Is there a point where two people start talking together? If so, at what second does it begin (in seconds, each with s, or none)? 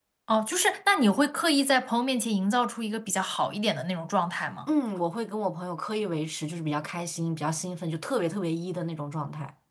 none